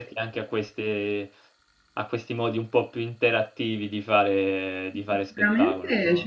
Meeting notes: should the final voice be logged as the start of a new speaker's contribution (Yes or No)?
Yes